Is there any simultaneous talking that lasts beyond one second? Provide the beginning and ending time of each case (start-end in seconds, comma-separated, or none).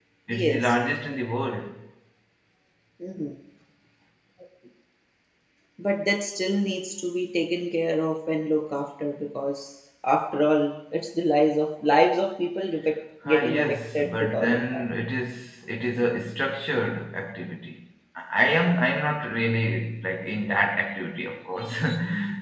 13.2-14.8